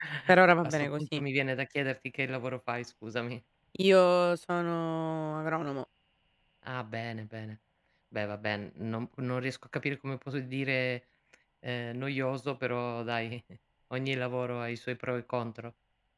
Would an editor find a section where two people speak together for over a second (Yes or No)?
No